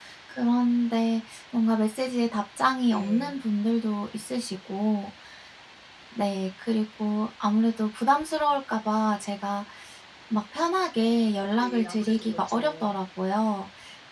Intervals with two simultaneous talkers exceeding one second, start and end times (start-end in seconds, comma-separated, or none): 11.6-12.9